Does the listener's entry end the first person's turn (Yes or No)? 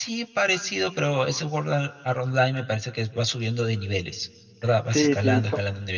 Yes